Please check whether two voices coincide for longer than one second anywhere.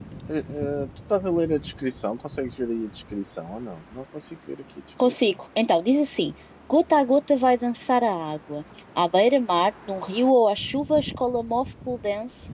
No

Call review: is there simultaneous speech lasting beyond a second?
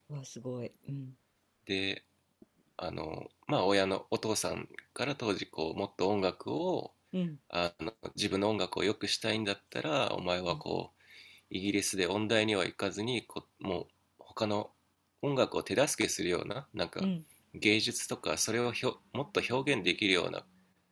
No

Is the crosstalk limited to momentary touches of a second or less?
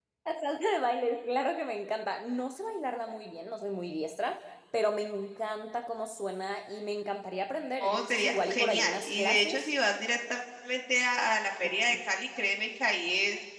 No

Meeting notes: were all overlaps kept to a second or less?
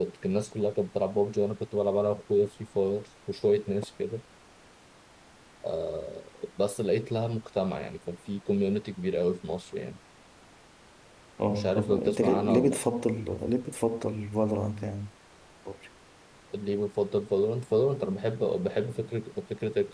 No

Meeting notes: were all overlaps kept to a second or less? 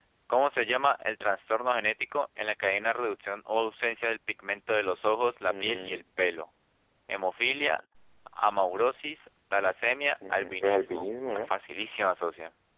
No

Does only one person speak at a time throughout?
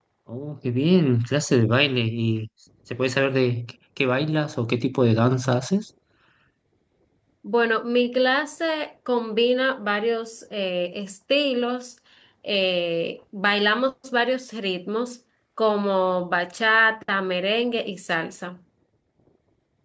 Yes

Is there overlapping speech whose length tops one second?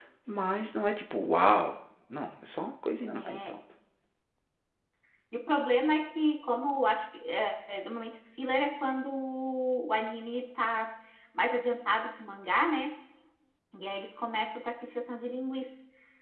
No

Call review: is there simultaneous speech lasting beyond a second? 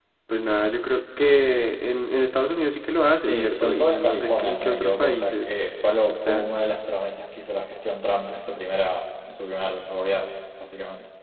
Yes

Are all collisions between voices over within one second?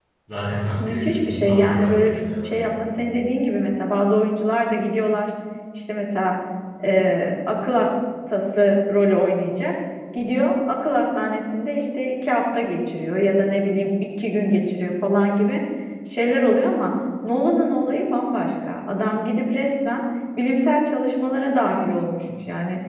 No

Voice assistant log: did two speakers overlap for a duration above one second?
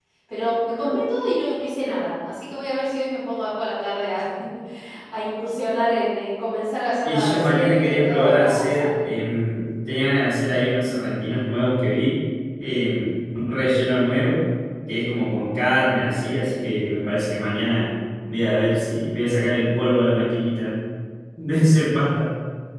Yes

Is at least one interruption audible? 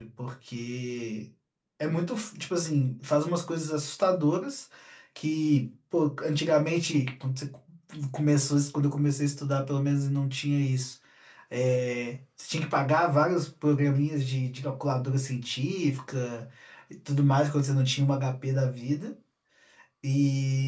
No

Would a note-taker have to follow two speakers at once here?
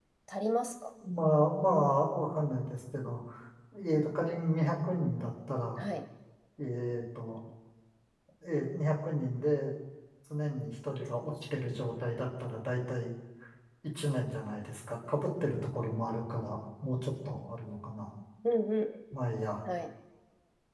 No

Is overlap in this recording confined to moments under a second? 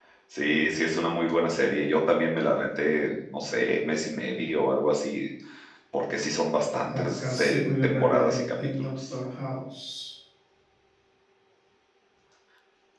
No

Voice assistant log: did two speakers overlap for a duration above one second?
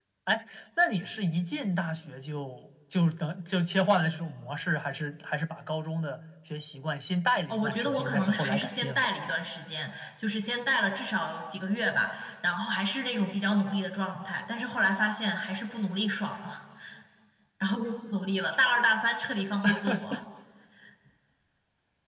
Yes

